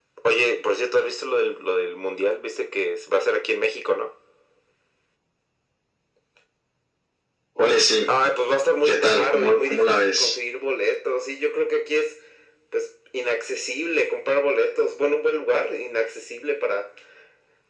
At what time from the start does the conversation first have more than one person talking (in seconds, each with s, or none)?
8.9 s